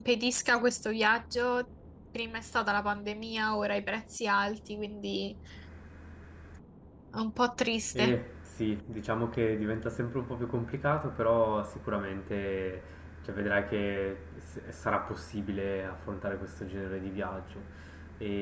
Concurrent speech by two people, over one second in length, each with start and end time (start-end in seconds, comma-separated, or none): none